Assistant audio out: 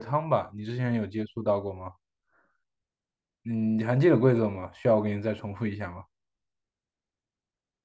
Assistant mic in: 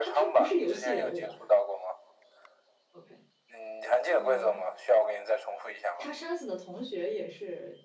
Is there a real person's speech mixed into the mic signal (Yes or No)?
Yes